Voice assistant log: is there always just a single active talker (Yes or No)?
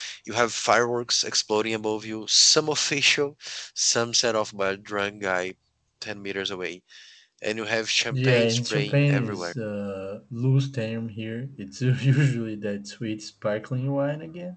No